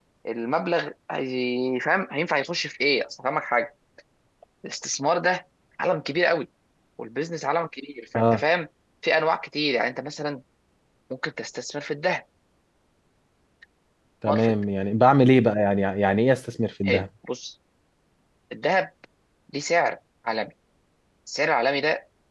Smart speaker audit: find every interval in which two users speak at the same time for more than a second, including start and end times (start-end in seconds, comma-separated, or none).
none